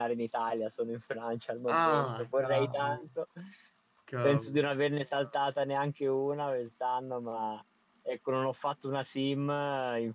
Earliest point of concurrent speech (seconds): 2 s

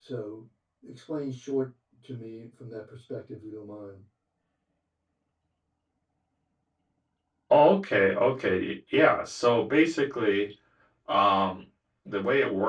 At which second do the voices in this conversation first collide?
none

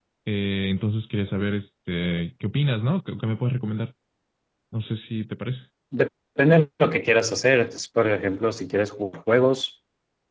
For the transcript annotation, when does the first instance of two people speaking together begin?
none

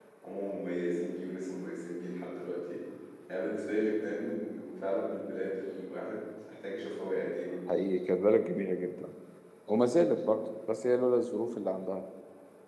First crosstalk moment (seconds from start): none

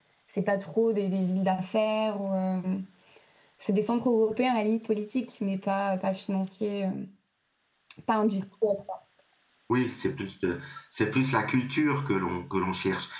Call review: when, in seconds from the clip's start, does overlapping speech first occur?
none

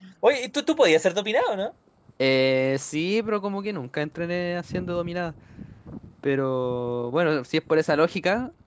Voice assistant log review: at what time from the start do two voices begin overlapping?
none

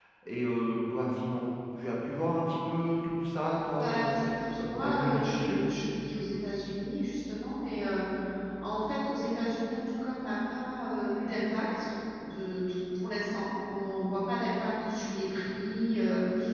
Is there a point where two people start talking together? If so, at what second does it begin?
4 s

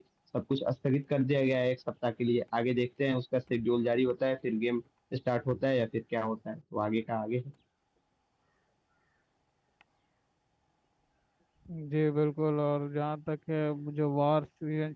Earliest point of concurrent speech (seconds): none

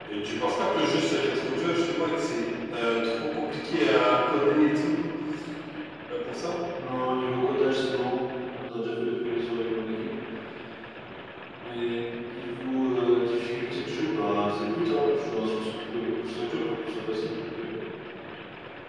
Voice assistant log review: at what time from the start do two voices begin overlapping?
none

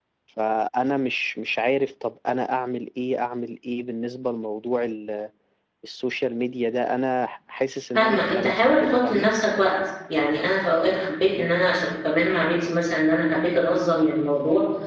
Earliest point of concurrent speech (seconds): 8 s

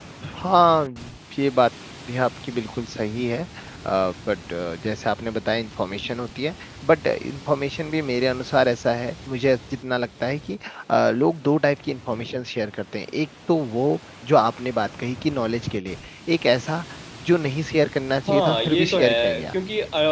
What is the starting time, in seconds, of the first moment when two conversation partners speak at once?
18 s

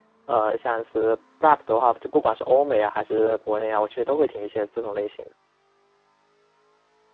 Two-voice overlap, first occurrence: none

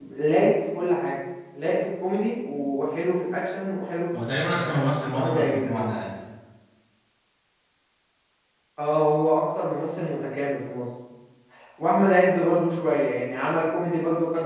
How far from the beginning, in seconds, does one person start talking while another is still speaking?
5 s

